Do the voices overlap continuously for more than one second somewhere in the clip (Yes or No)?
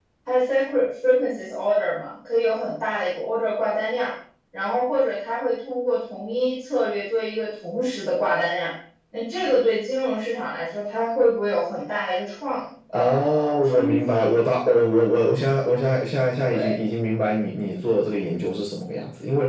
Yes